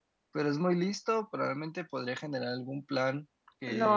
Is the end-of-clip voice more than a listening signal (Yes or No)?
Yes